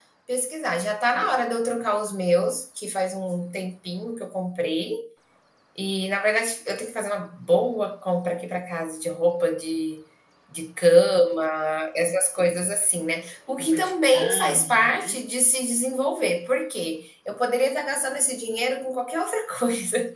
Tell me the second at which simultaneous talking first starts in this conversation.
13.7 s

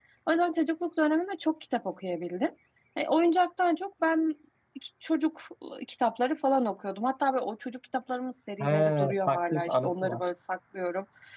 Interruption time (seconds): 8.6 s

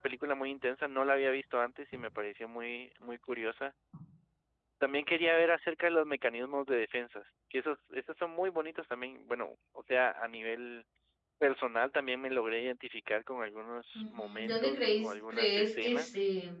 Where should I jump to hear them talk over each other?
14.0 s

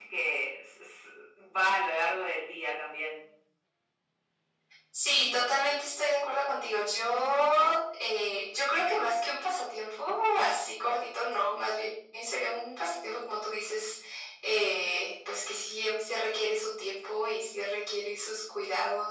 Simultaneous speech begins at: none

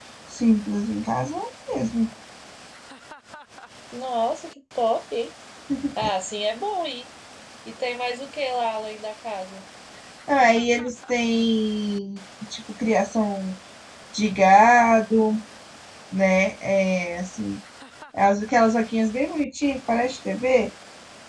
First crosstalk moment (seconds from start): none

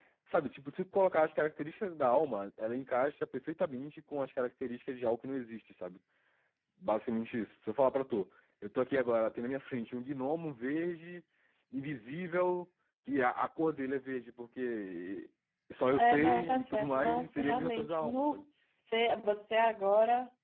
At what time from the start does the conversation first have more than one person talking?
15.9 s

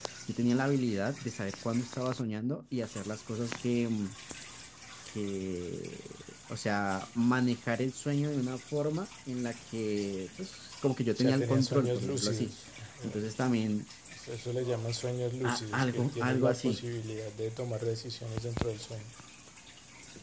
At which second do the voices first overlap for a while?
11.1 s

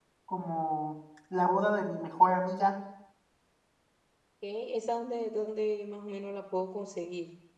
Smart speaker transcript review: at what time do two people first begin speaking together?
none

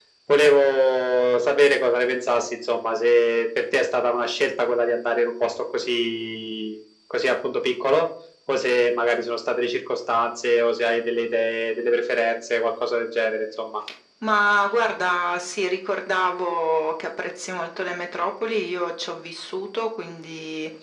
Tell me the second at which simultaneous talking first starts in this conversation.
none

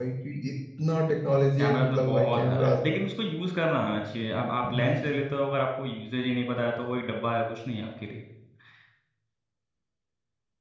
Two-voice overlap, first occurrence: 1.6 s

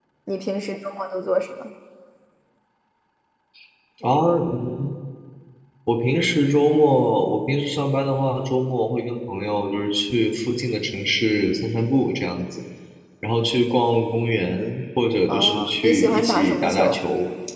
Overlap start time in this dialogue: 15.3 s

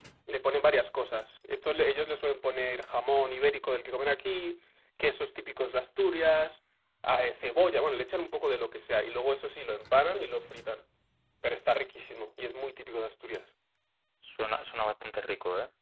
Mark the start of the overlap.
none

